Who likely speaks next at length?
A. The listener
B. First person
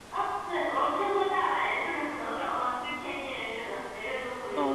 A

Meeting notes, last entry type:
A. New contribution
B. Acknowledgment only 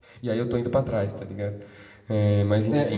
A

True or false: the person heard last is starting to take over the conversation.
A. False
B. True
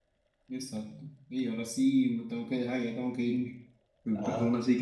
A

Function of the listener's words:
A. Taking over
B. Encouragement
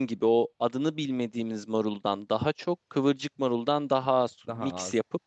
B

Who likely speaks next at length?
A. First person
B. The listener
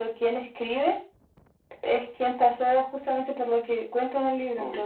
B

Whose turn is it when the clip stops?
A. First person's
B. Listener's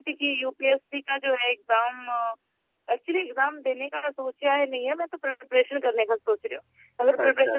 A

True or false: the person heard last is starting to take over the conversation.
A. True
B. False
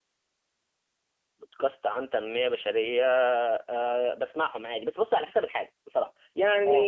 B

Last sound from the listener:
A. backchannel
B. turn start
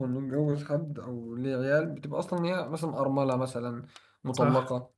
B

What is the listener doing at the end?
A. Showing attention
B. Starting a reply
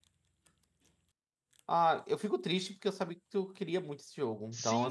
B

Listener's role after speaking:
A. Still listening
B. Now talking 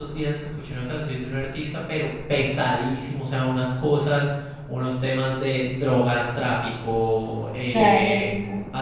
A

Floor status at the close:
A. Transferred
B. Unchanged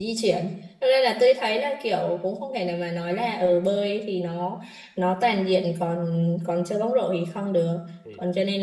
B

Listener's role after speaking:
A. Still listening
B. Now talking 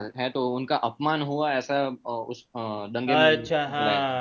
B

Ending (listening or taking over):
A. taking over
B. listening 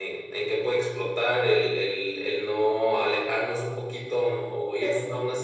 B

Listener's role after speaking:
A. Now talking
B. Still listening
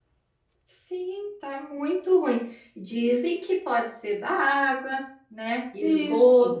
B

